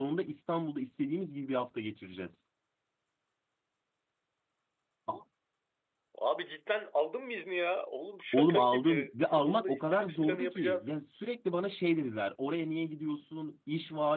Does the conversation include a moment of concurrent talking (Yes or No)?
Yes